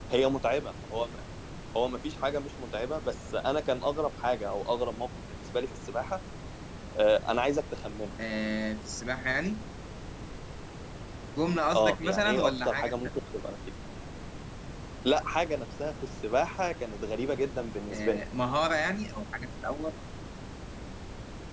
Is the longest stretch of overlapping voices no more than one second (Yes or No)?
No